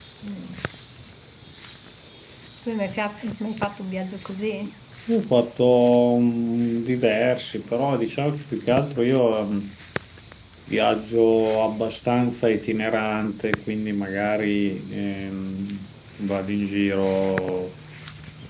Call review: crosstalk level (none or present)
none